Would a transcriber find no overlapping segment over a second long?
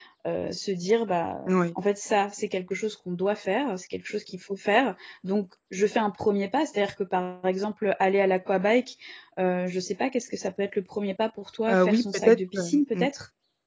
No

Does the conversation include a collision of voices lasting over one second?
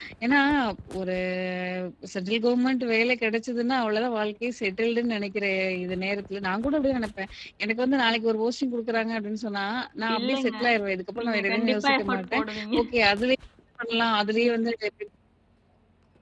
Yes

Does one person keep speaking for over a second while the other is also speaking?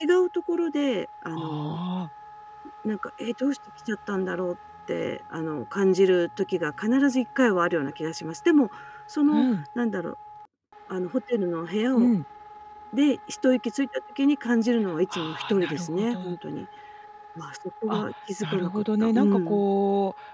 Yes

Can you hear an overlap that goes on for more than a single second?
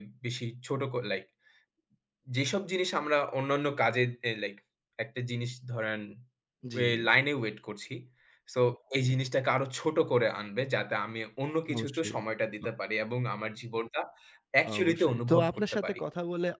Yes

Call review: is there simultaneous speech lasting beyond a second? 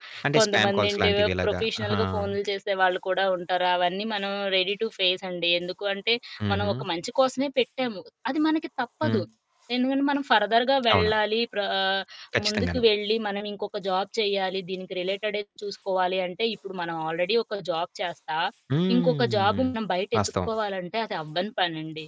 Yes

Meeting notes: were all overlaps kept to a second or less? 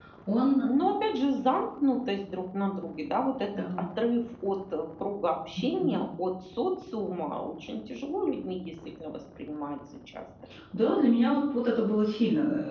Yes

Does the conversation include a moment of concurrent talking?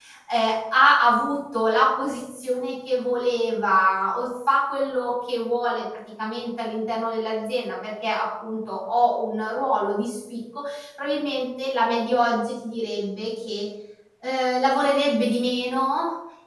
No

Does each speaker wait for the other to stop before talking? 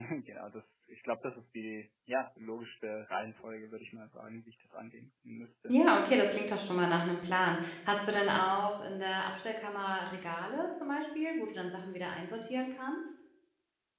Yes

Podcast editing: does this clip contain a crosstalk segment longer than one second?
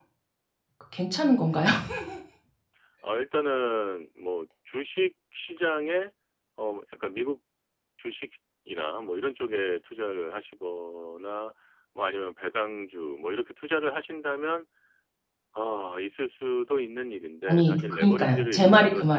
Yes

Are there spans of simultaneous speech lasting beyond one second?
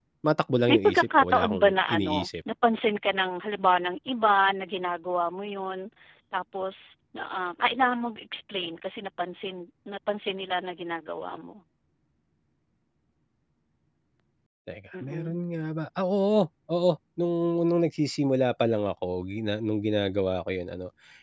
Yes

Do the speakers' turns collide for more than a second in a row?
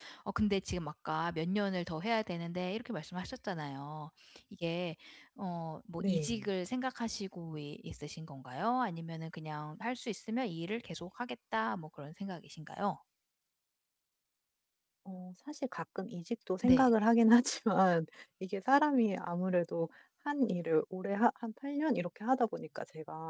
No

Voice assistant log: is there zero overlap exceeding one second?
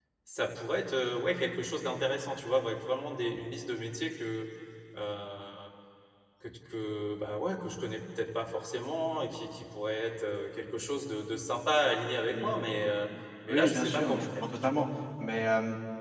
No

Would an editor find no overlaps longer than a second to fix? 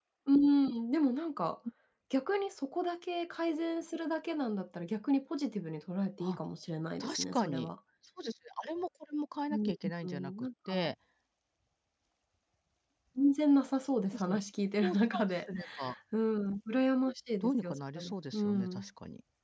No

